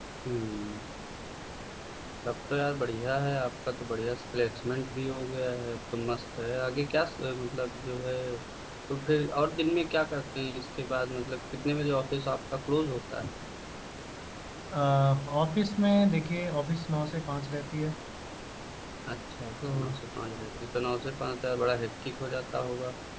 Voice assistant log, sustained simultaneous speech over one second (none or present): none